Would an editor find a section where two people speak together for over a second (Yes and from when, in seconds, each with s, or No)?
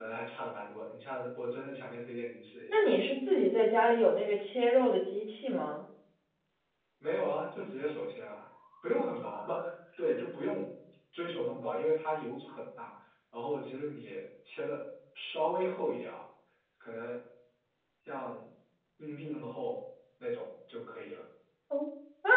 No